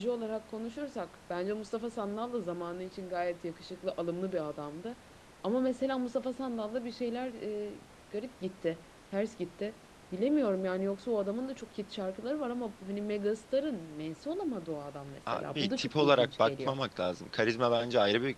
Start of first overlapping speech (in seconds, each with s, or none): 15.3 s